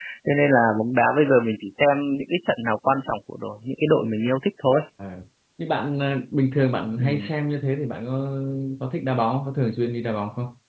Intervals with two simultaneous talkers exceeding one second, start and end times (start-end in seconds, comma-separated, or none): none